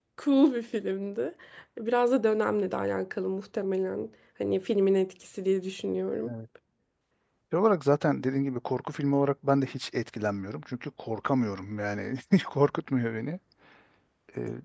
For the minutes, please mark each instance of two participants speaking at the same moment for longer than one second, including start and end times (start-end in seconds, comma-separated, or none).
none